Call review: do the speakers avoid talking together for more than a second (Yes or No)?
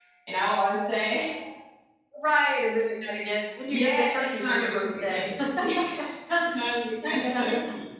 No